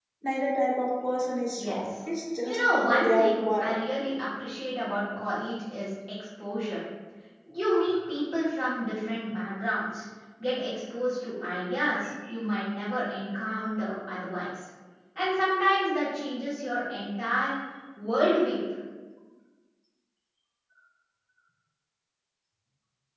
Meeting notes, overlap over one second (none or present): present